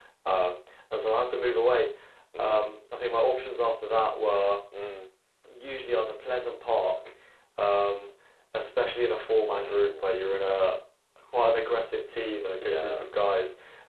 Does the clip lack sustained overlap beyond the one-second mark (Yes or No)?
Yes